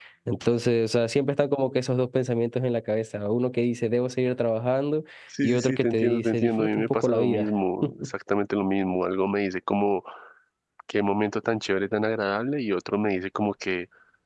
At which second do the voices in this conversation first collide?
5.4 s

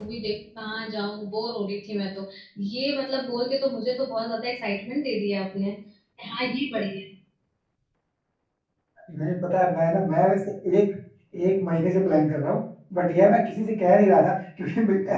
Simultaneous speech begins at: none

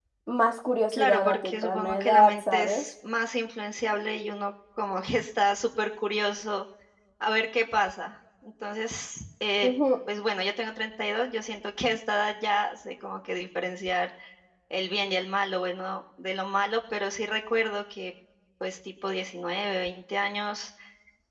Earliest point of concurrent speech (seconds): 0.9 s

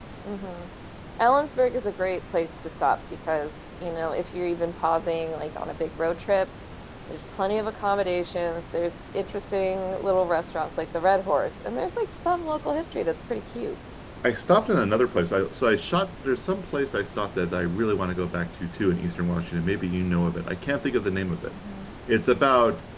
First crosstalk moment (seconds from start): none

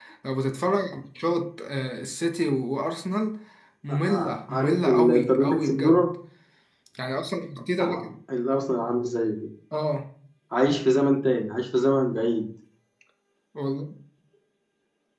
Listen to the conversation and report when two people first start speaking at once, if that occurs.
3.9 s

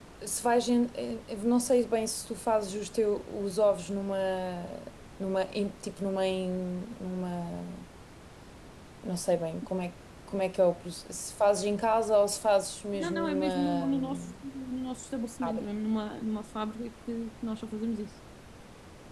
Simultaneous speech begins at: 12.9 s

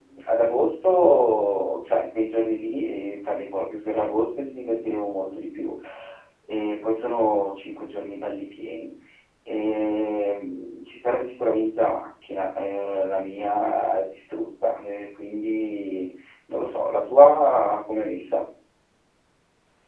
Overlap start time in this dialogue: none

